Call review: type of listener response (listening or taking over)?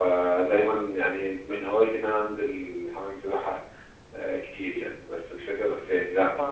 taking over